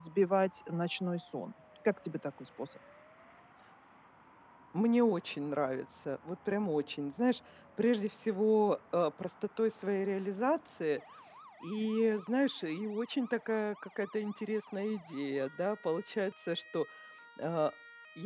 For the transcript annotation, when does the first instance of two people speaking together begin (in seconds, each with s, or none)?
none